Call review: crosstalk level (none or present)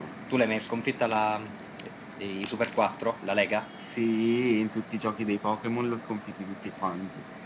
none